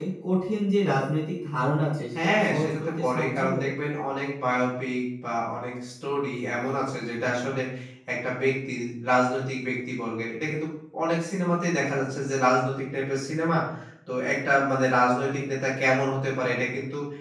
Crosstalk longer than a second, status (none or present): present